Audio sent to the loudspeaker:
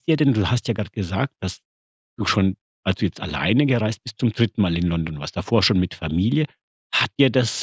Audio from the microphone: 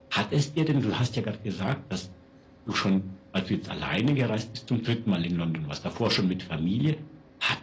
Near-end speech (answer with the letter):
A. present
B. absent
B